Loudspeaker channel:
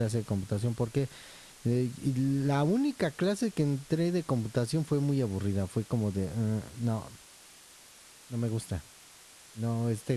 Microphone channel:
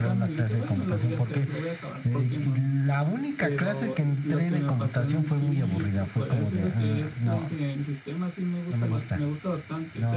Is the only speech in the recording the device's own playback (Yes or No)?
No